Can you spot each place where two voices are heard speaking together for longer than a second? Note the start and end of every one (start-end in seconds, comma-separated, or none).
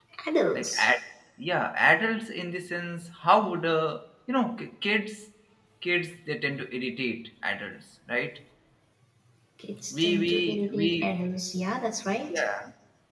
9.9-11.2